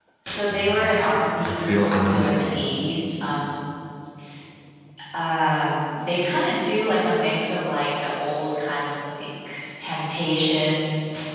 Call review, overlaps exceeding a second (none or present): present